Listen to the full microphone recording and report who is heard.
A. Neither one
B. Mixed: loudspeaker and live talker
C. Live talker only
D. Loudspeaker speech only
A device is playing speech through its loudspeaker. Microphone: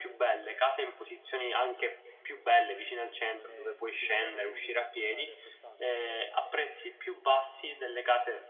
B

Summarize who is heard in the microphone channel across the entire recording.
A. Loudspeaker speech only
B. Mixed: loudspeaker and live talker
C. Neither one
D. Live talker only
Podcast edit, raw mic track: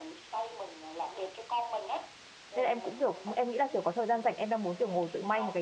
B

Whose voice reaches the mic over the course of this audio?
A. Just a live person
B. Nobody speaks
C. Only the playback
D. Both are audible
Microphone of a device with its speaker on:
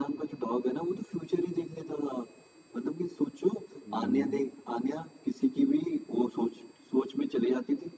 D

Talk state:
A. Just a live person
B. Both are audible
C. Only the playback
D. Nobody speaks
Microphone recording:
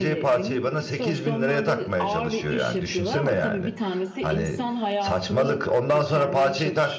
B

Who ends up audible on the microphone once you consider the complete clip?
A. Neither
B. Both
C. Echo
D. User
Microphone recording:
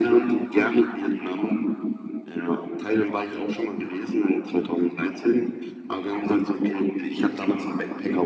C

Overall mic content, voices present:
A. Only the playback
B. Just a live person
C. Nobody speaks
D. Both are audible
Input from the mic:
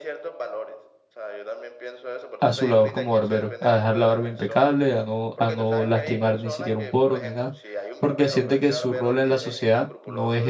D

